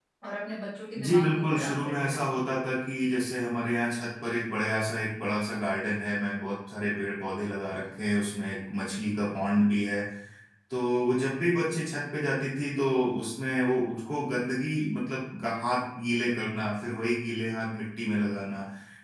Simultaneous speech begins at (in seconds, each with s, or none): 1.0 s